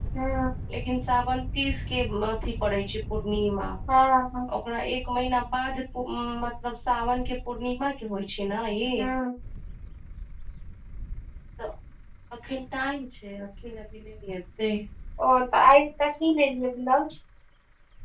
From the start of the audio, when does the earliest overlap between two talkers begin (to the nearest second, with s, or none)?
none